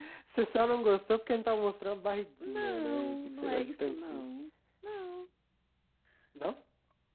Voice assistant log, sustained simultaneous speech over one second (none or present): present